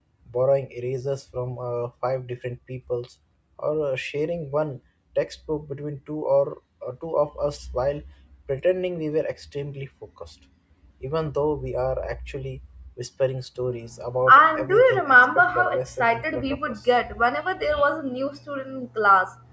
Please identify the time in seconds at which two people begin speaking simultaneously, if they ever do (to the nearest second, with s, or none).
14 s